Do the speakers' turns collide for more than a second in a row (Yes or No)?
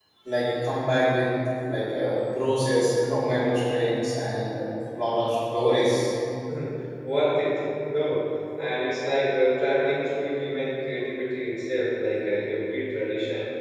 No